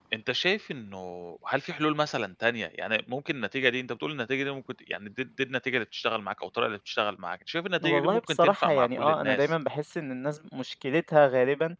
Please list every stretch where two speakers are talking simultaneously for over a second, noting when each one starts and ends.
7.8-9.4

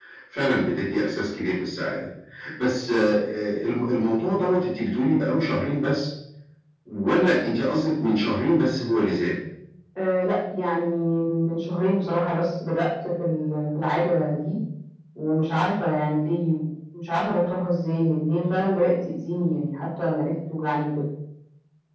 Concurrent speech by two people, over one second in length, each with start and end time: none

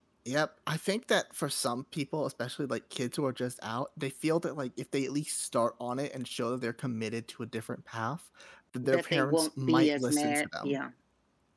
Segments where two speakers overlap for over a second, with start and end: 8.8-10.8

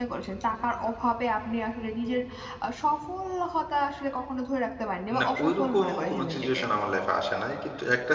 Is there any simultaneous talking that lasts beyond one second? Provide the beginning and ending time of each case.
5.2-6.6

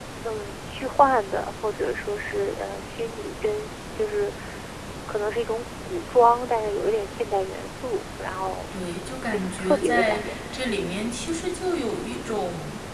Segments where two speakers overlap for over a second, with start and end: 8.9-11.2

